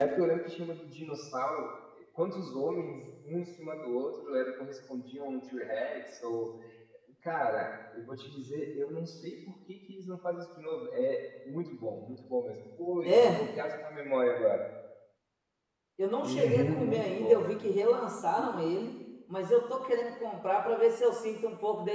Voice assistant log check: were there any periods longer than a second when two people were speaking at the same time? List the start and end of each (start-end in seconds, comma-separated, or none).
16.2-17.6